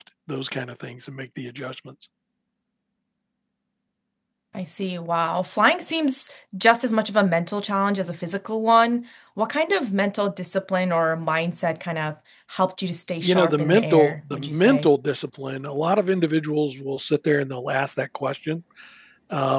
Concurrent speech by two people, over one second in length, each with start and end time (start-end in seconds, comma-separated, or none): 13.2-14.9